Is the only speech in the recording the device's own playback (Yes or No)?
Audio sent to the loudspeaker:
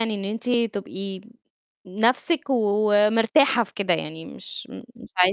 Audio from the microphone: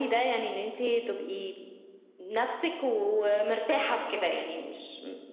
Yes